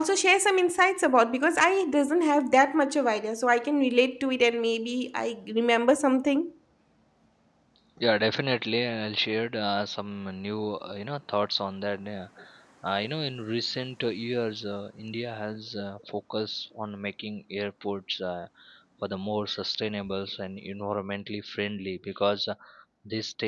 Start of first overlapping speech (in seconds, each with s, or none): none